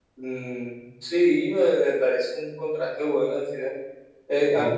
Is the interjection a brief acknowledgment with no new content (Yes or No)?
Yes